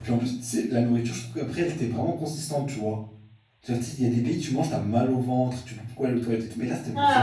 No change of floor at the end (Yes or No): No